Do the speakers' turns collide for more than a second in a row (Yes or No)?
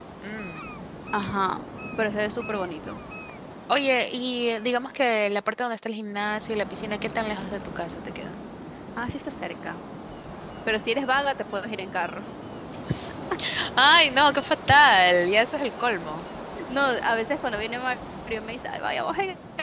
No